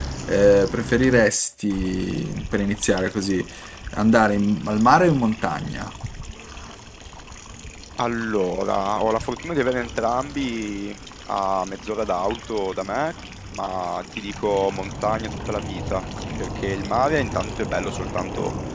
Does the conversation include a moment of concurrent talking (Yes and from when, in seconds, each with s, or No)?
No